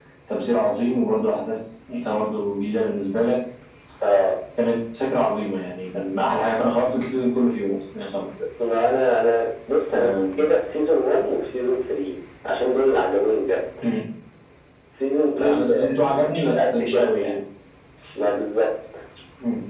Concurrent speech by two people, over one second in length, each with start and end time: 15.4-17.4

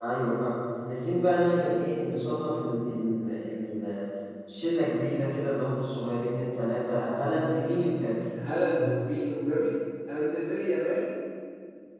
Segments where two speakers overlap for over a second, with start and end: none

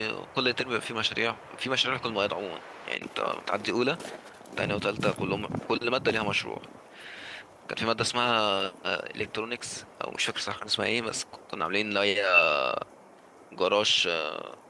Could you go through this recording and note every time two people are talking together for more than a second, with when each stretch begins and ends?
none

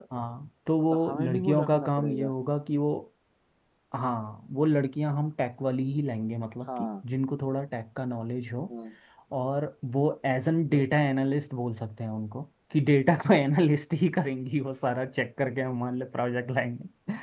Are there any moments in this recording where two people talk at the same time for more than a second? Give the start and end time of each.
0.9-2.3

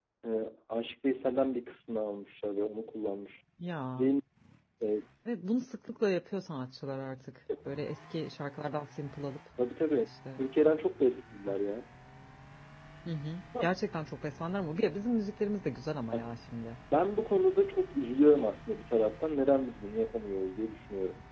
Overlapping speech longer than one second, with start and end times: none

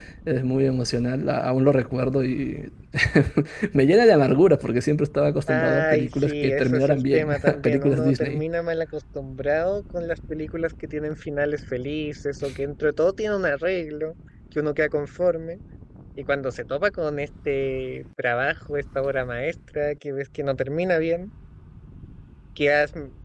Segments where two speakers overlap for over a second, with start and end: 5.5-8.4

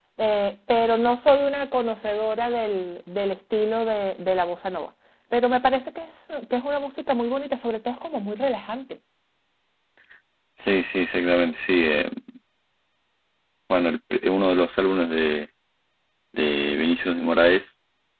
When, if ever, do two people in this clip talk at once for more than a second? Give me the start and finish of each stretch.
none

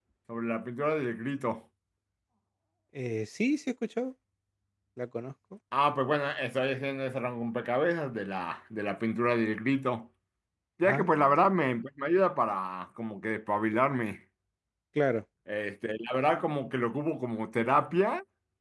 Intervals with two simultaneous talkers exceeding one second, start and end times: none

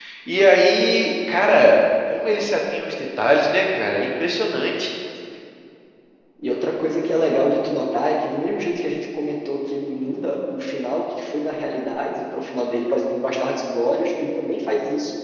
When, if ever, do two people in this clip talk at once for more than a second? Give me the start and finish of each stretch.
none

